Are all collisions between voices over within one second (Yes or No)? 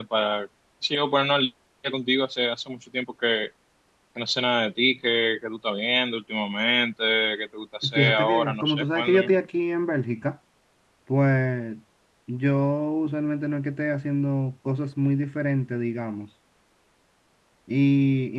No